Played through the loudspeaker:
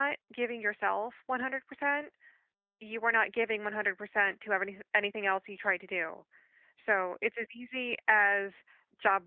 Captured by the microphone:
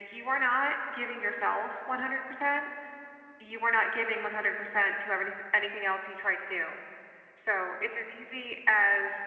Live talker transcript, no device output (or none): none